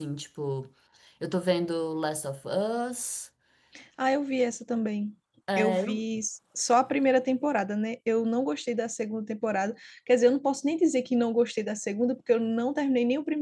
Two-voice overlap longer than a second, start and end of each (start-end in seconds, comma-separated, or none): none